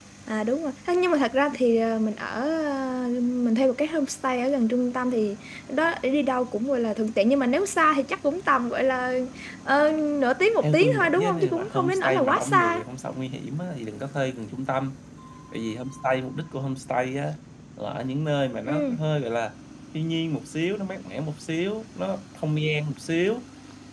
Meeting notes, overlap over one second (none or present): present